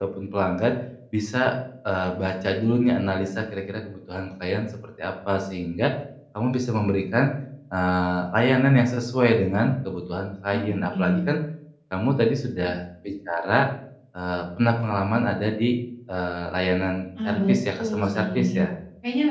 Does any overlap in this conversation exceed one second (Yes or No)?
Yes